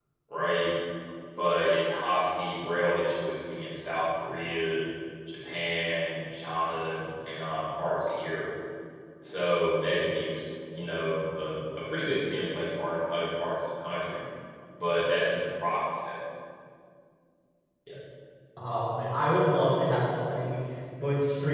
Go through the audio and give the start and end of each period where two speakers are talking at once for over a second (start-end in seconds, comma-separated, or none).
none